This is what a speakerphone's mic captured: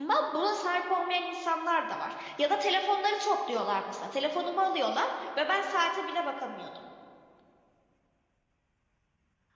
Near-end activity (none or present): present